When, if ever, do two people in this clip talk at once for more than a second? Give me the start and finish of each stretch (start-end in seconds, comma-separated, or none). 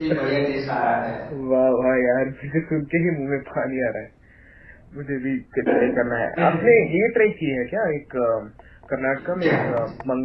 none